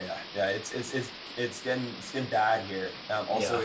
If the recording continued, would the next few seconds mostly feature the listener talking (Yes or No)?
No